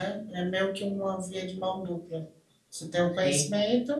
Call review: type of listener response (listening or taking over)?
listening